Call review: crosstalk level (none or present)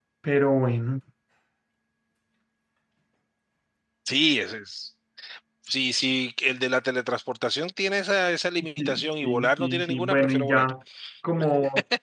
present